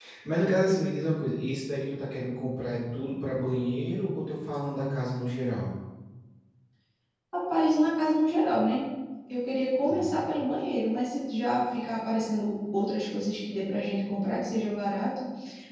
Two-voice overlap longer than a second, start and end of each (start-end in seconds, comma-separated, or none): none